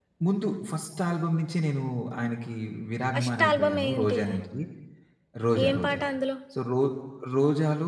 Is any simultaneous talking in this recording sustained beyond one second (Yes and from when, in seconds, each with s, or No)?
Yes, from 3.1 s